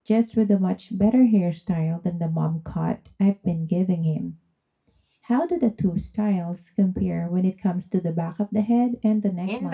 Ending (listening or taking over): taking over